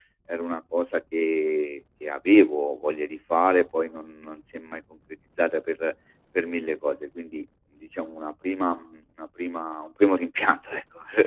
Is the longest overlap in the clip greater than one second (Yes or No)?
No